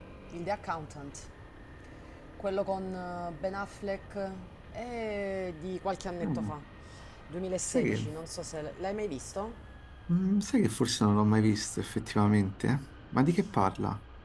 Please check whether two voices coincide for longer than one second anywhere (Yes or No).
No